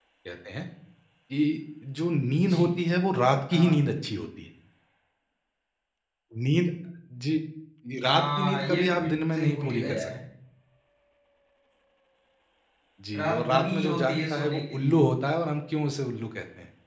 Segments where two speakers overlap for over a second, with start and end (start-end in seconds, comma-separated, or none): 8.0-10.1, 13.2-15.0